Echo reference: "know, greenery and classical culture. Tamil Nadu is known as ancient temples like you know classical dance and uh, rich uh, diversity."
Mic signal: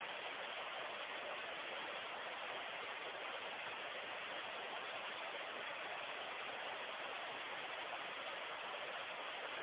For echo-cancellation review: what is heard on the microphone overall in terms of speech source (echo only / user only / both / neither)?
neither